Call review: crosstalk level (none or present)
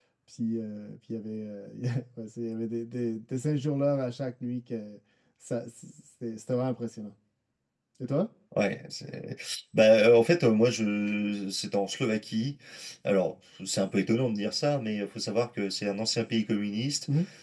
none